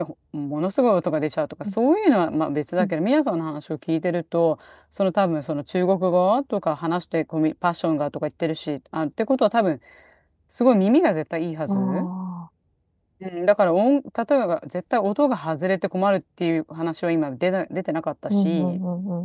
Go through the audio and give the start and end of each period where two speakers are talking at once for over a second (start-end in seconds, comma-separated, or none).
none